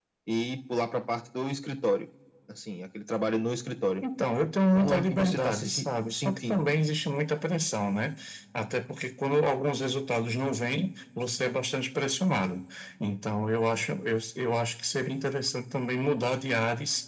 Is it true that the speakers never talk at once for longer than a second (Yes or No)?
No